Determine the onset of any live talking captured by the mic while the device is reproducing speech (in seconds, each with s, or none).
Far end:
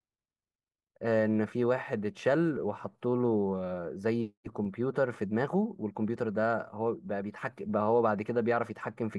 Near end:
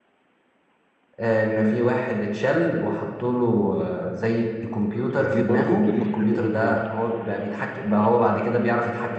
5.2 s